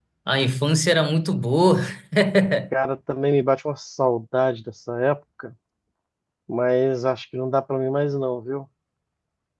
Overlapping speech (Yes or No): No